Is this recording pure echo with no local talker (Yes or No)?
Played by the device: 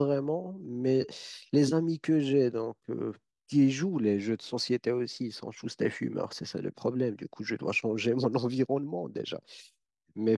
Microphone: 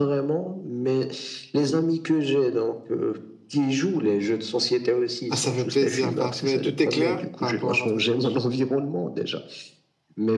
No